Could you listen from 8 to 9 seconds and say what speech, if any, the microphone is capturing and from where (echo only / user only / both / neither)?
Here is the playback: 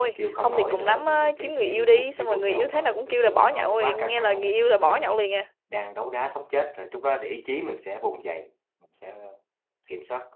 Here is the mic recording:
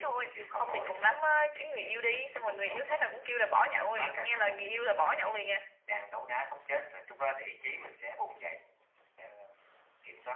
echo only